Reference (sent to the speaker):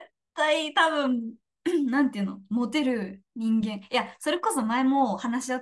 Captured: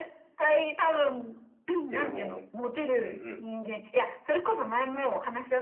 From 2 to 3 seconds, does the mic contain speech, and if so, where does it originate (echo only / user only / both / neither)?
both